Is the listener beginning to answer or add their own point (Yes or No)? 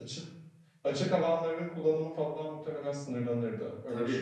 Yes